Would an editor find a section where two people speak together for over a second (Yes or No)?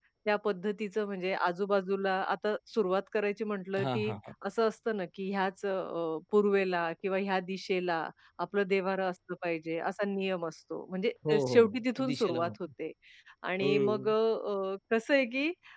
Yes